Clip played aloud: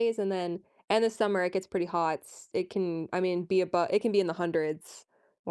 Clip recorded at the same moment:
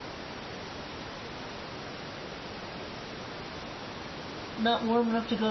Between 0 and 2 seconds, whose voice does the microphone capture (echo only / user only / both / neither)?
neither